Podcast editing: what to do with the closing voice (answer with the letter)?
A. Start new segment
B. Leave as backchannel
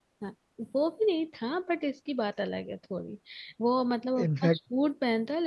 B